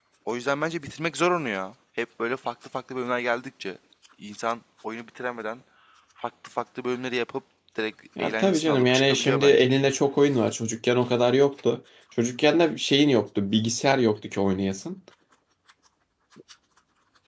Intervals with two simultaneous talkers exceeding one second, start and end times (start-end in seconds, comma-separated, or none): 8.2-9.7